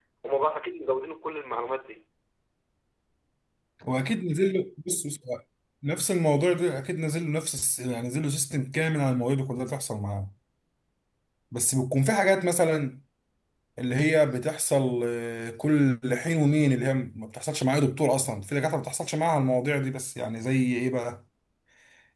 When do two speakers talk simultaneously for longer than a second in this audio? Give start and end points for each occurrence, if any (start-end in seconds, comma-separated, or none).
none